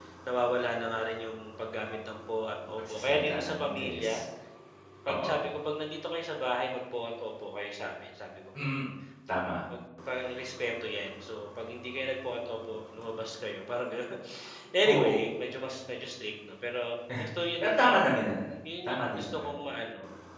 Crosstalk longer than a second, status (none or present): present